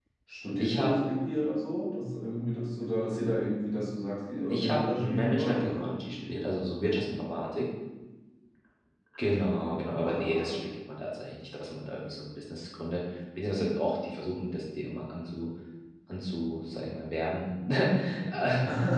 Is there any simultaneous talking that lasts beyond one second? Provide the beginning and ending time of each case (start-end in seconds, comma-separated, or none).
4.5-5.8